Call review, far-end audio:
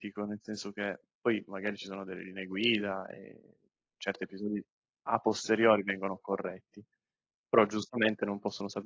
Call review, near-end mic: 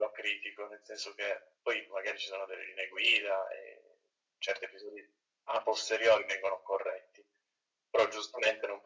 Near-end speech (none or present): none